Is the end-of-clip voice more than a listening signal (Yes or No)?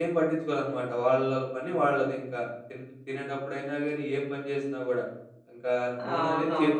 No